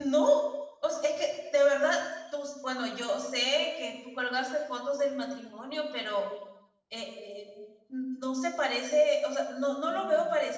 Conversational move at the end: listening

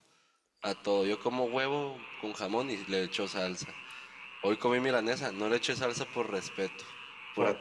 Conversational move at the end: listening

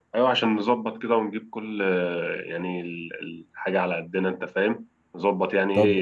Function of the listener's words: taking over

